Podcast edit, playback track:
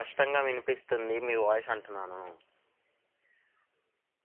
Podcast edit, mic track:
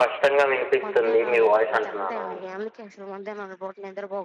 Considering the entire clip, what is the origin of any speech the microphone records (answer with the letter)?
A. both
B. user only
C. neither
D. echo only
A